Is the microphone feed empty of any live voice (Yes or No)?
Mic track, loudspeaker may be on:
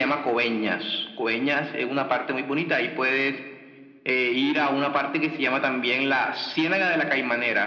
Yes